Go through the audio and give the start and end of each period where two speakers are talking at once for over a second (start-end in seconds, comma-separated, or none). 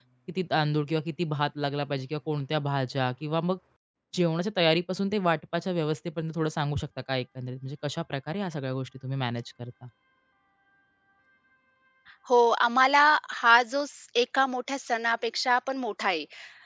none